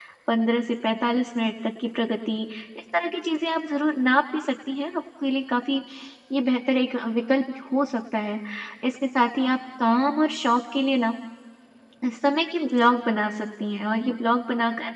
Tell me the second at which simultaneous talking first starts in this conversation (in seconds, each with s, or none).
none